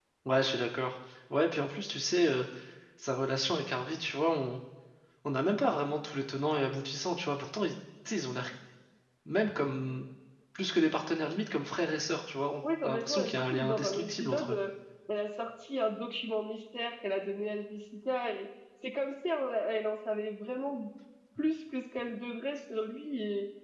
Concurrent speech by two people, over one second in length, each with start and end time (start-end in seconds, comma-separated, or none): 12.8-14.6